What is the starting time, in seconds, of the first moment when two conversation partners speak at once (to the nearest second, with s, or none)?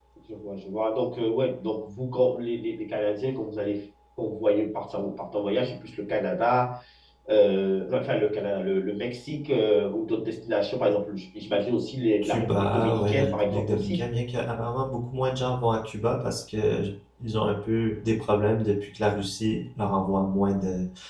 12 s